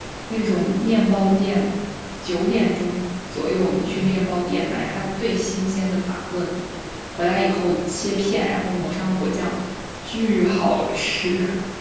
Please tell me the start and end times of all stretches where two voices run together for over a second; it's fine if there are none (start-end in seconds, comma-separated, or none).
none